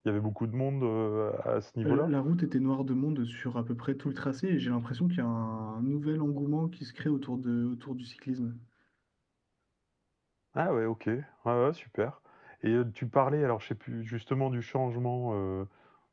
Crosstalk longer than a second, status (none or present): none